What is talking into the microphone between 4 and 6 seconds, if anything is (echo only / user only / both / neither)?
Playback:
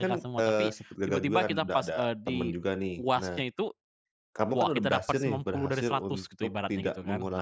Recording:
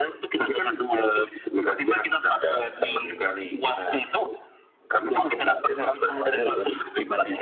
echo only